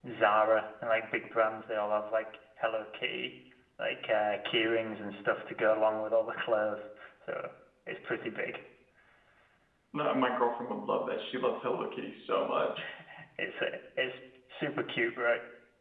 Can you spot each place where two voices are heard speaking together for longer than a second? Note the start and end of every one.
none

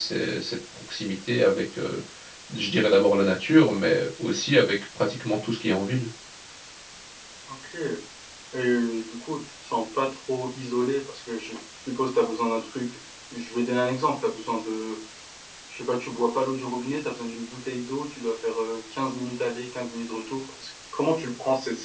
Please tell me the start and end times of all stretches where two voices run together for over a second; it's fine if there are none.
none

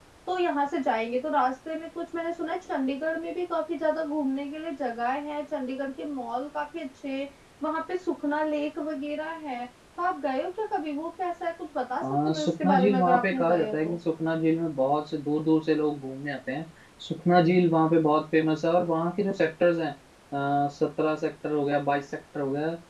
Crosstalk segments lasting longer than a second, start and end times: 12.0-14.0

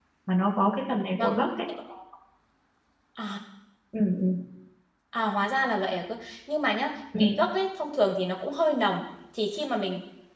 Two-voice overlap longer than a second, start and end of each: none

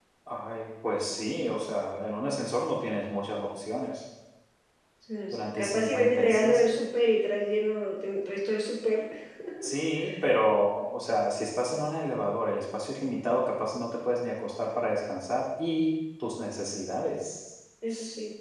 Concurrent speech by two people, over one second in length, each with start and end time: 5.3-6.6

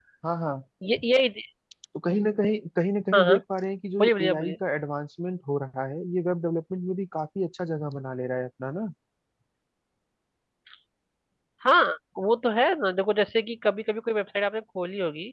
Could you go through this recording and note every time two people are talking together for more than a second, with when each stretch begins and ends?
none

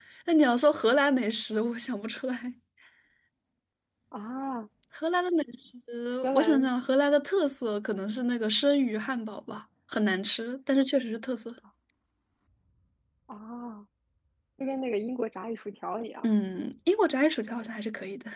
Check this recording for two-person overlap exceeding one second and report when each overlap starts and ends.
none

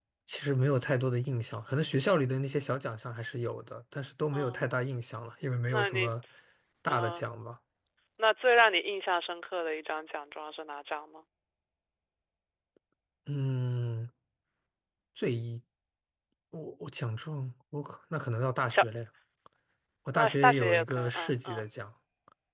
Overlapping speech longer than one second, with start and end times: 20.1-21.7

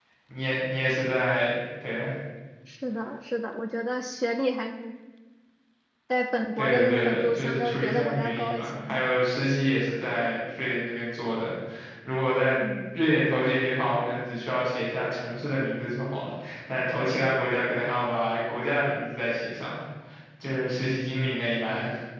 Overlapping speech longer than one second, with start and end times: 6.6-9.0

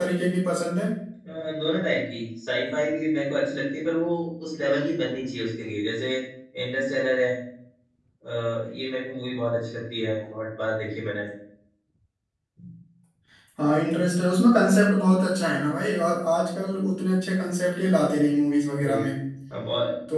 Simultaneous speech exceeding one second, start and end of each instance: none

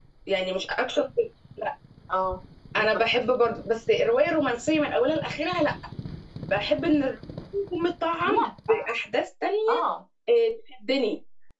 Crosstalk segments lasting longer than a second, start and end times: none

